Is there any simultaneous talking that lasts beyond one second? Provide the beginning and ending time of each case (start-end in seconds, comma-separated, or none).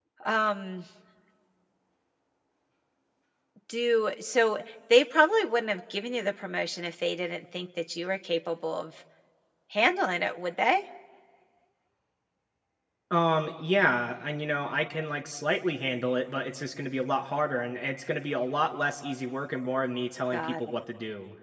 none